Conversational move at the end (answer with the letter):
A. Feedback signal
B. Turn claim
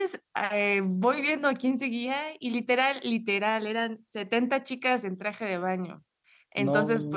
A